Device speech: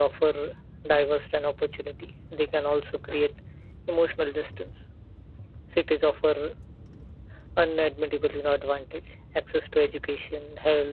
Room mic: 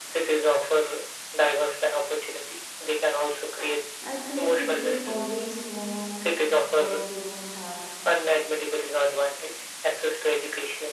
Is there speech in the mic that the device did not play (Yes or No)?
Yes